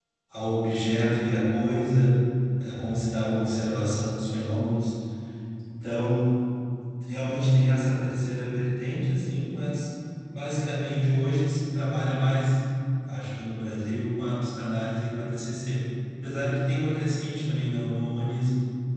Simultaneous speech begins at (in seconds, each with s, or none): none